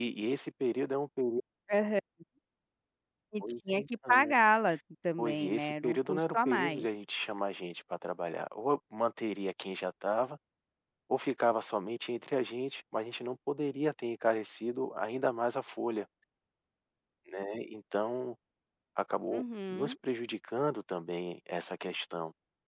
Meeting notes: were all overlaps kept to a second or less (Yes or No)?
No